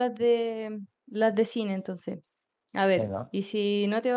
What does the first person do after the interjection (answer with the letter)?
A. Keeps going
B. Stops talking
A